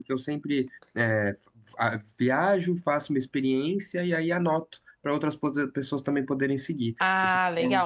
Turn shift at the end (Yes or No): Yes